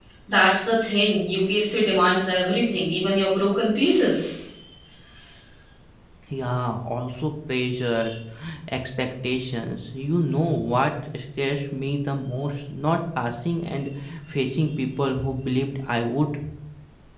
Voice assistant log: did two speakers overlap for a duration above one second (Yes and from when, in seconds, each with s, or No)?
No